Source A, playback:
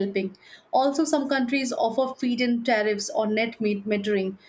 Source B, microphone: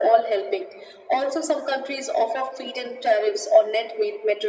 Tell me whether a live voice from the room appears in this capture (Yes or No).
No